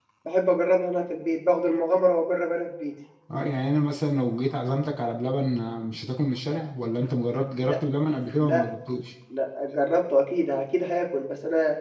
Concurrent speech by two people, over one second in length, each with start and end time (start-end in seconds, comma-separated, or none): none